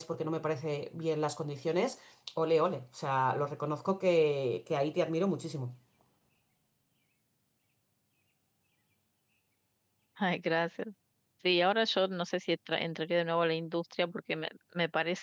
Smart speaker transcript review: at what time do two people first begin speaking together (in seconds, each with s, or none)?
none